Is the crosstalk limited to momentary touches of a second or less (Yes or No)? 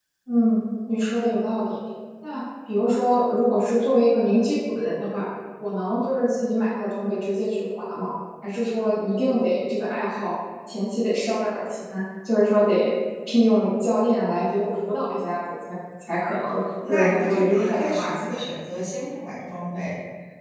No